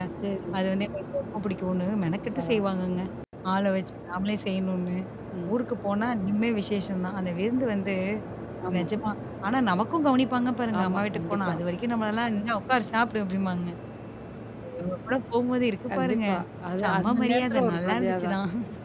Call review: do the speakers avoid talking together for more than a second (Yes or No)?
No